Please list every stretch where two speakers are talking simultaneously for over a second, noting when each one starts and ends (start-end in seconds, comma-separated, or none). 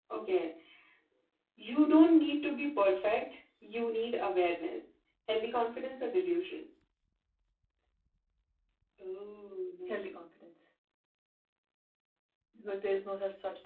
none